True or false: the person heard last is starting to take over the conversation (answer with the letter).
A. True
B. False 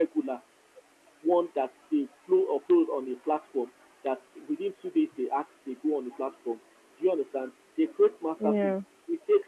B